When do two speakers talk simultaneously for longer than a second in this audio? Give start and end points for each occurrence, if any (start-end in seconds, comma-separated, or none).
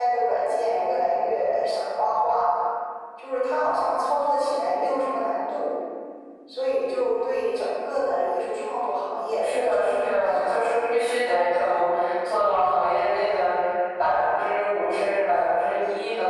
9.4-10.8